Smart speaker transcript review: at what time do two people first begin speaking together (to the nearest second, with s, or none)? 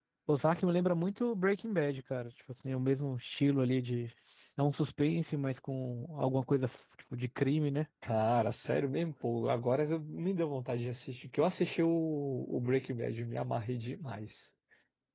none